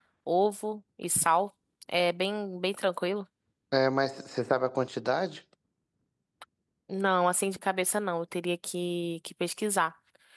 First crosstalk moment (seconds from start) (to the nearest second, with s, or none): none